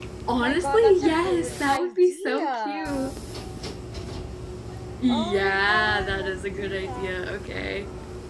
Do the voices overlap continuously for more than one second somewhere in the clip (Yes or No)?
Yes